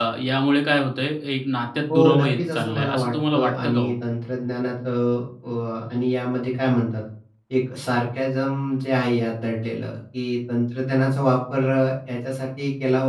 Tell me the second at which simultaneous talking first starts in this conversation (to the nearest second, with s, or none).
2 s